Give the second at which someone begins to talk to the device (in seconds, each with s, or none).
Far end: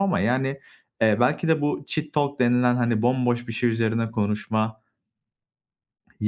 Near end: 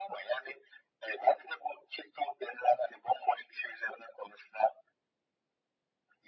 none